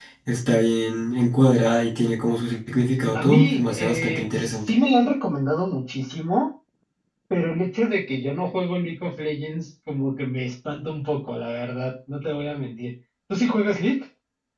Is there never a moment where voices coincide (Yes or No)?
No